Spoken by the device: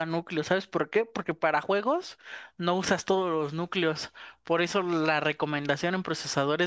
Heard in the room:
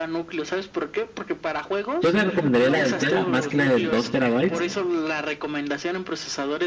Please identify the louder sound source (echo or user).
user